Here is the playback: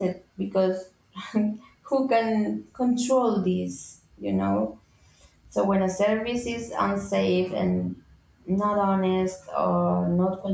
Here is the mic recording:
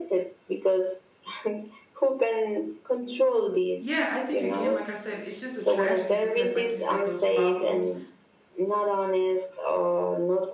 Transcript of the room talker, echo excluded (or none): Yeah, I think again, like I said, it's just a tragedy because, like you said, those problems